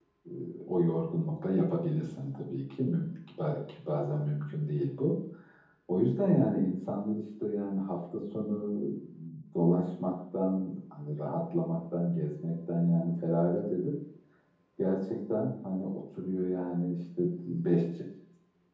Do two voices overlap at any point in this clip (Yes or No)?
No